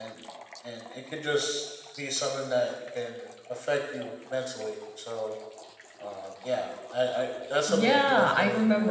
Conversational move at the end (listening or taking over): taking over